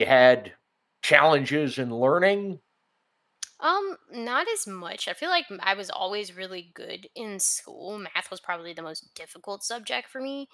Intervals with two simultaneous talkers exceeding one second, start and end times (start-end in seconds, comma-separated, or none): none